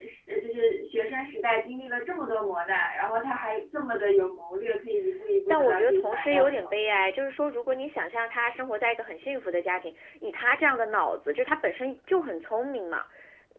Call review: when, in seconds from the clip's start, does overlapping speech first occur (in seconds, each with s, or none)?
5.5 s